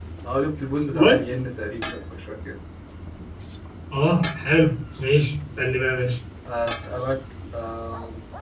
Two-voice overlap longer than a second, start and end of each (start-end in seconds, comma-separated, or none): none